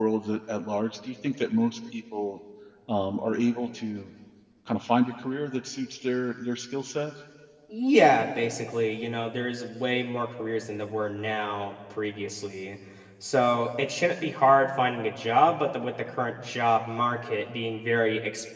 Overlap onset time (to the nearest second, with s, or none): none